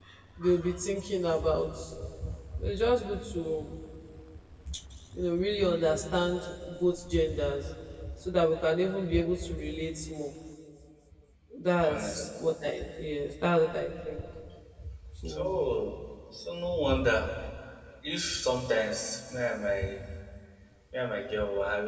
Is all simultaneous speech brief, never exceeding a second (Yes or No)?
Yes